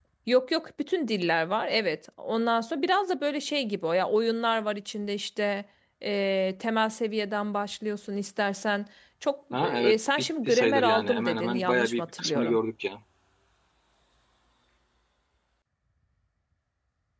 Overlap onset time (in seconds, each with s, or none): 9.5 s